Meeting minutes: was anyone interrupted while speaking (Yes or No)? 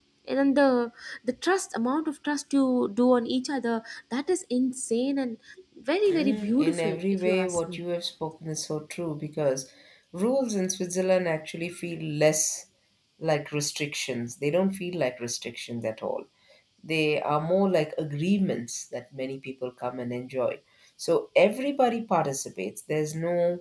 Yes